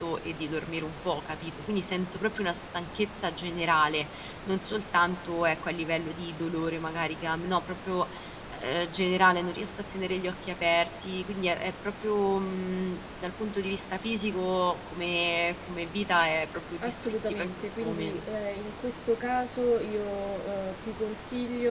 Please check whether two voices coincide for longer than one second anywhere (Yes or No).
Yes